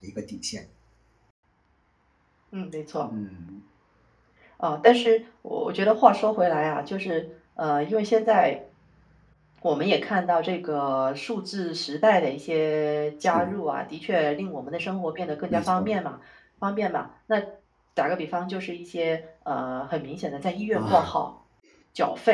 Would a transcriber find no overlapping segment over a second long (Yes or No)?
Yes